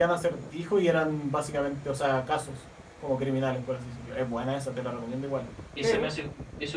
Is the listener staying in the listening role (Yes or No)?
No